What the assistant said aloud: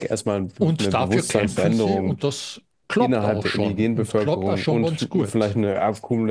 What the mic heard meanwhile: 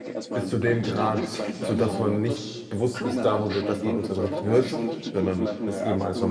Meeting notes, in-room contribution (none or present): present